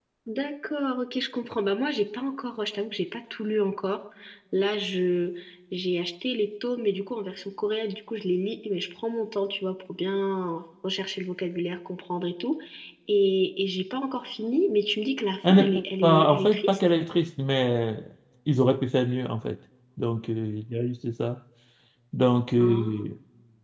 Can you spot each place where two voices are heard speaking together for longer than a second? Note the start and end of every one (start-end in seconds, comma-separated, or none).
15.5-16.8